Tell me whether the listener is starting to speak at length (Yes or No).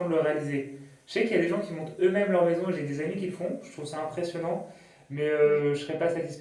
No